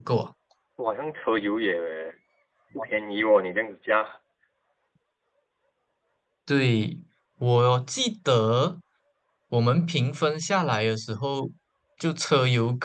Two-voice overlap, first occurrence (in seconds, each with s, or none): none